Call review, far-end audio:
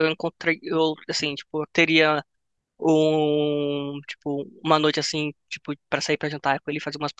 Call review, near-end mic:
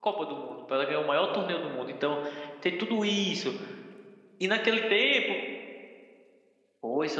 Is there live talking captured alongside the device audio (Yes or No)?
Yes